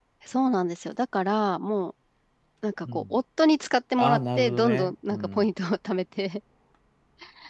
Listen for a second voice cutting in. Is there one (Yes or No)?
Yes